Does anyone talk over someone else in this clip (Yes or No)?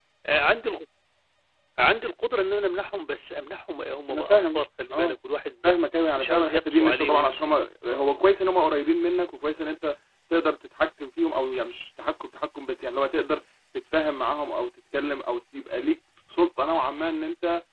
Yes